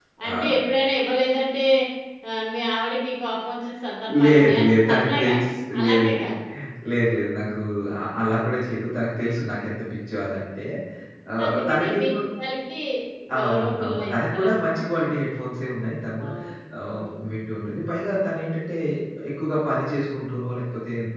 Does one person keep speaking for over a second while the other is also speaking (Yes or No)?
Yes